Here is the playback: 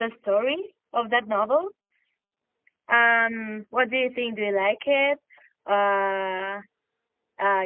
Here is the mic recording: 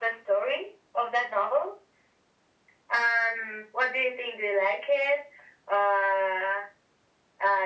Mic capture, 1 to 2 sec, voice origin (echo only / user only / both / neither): echo only